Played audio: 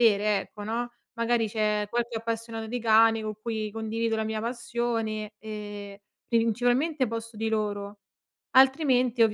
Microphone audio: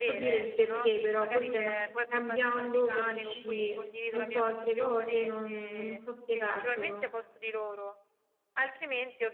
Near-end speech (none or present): present